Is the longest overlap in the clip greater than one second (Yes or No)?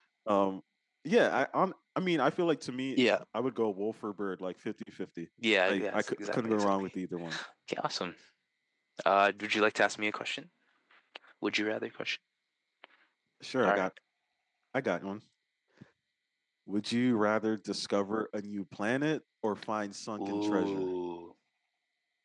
Yes